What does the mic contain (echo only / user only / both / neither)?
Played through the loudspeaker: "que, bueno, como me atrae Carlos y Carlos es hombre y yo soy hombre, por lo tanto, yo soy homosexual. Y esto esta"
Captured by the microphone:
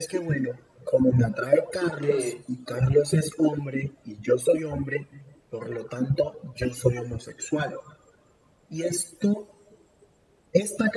both